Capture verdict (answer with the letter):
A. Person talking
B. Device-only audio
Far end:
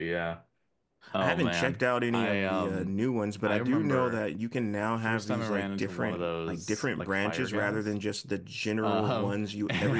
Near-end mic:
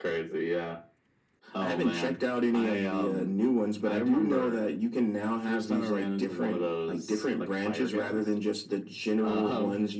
B